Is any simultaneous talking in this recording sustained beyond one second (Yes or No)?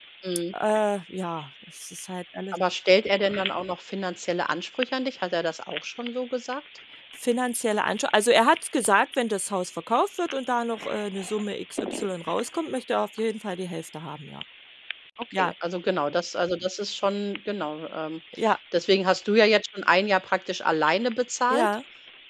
No